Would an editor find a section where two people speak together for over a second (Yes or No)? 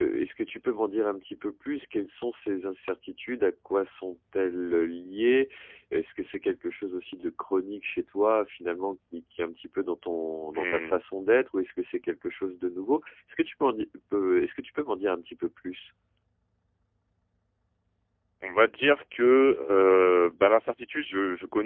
No